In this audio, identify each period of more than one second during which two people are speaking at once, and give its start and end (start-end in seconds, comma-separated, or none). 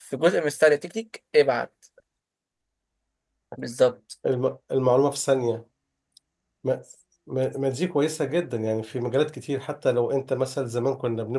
none